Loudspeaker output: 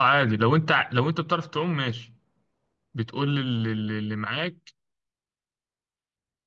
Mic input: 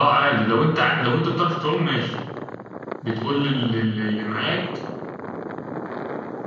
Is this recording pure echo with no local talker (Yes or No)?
Yes